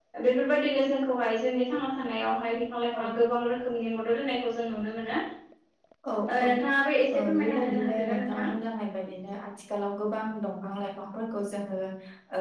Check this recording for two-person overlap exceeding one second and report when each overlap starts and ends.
7.1-8.4

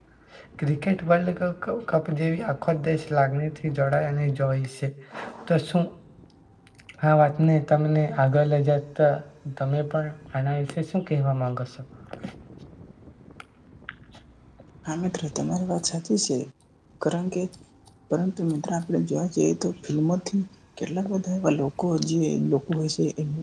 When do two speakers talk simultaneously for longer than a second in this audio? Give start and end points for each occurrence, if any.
none

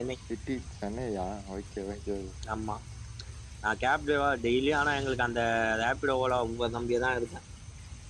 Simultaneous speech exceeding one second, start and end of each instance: none

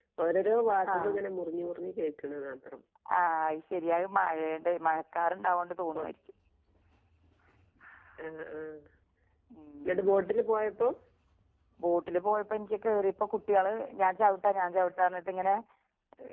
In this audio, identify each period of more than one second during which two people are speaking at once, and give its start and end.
none

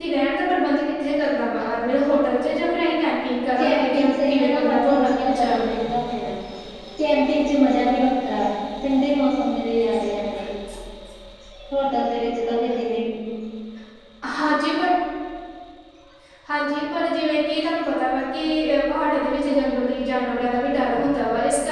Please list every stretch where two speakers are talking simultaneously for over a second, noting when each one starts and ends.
3.6-5.6

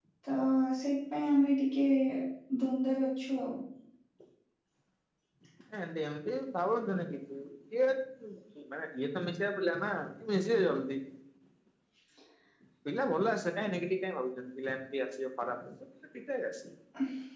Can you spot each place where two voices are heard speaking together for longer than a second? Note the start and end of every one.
none

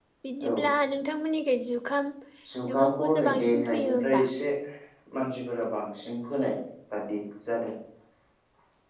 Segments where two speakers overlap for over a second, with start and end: 2.7-4.2

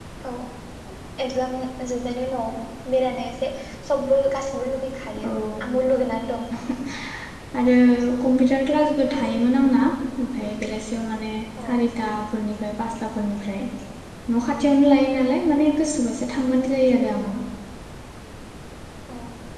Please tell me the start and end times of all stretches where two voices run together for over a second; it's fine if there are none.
none

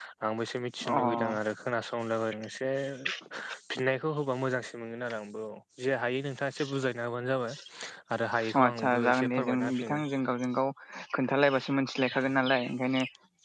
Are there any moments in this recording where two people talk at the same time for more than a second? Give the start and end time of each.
8.6-10.0

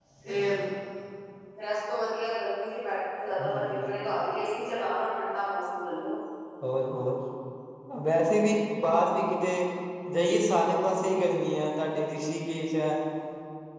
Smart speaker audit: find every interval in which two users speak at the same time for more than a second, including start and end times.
none

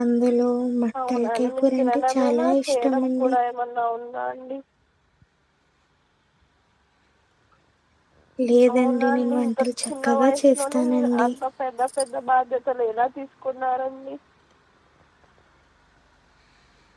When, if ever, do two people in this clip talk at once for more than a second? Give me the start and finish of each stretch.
1.1-3.3, 8.7-11.3

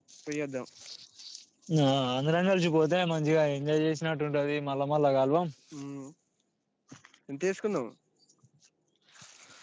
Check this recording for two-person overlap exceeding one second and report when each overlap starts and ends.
none

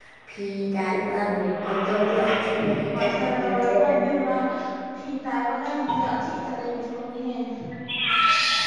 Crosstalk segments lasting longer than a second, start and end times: 2.9-4.3

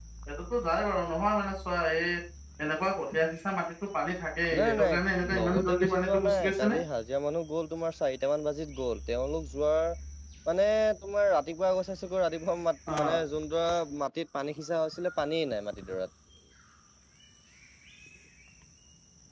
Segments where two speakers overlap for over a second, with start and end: 5.4-6.8

